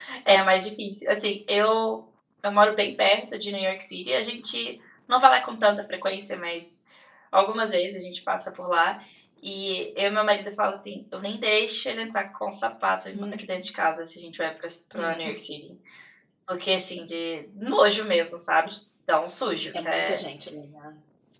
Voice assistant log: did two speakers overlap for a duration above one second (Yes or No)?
No